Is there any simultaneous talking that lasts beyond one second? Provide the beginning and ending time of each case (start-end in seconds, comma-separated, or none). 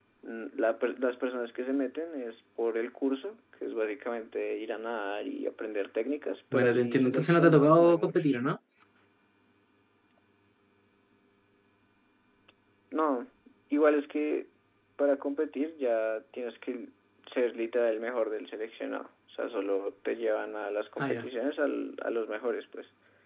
6.5-8.2